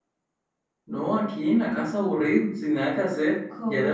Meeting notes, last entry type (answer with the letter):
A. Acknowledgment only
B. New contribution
B